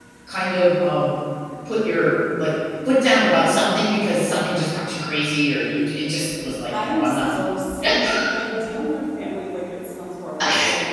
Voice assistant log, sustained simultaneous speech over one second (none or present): none